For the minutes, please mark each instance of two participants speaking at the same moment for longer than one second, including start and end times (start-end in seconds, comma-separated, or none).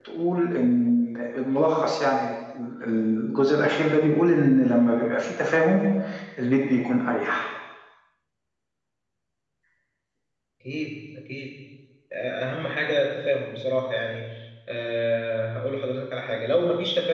none